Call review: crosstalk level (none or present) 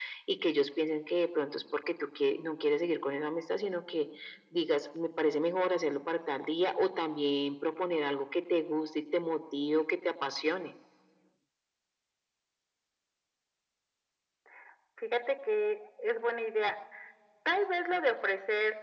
none